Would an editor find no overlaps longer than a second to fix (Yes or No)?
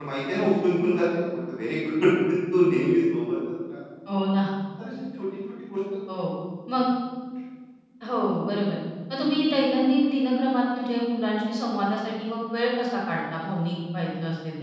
Yes